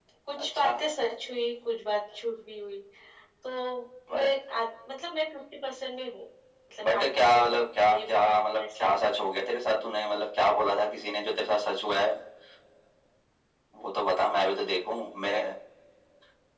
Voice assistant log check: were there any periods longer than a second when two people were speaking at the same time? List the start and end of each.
6.8-9.0

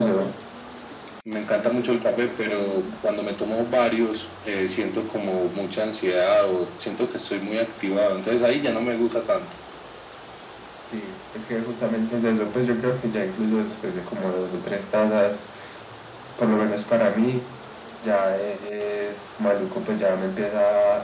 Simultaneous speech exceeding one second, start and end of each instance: 1.6-2.9

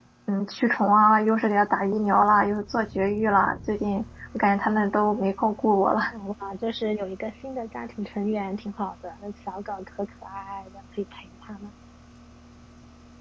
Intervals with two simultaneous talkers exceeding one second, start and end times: none

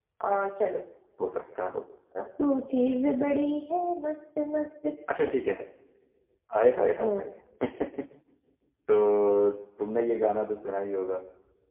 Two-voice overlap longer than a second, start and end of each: none

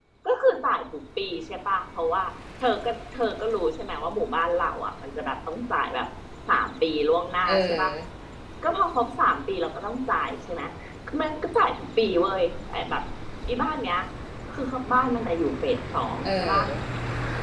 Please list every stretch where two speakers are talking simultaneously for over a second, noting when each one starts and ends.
none

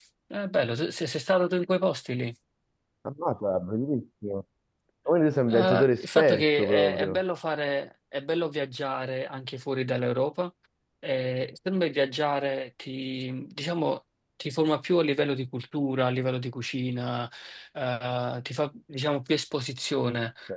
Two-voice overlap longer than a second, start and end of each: 5.5-7.2

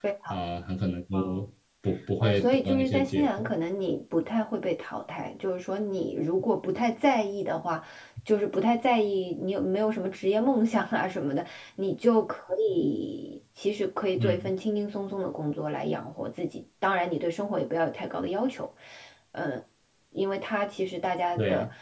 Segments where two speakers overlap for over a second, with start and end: 2.2-3.5

